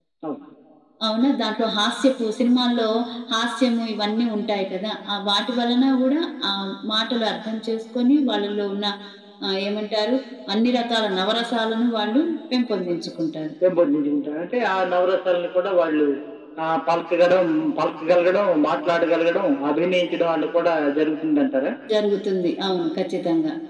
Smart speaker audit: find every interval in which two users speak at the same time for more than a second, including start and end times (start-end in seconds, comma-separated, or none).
none